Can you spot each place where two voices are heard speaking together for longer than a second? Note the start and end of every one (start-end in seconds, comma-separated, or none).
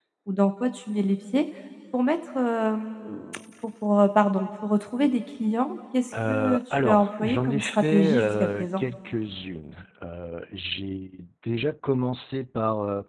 6.3-8.8